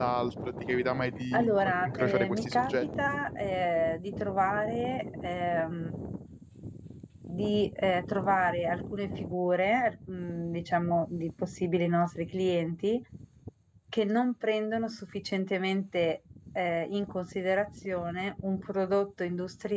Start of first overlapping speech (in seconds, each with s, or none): 1.3 s